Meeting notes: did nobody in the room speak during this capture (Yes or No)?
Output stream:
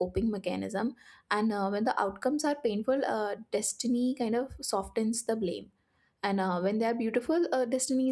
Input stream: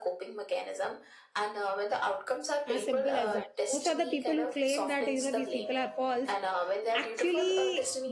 No